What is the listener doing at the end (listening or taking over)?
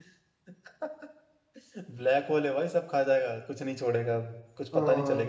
listening